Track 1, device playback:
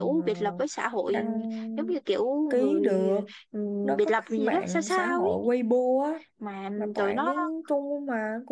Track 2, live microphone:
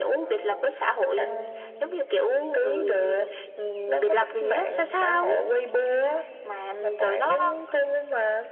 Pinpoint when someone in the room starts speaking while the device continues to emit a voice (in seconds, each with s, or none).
none